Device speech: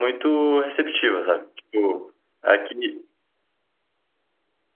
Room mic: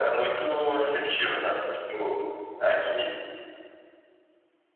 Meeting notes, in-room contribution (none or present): none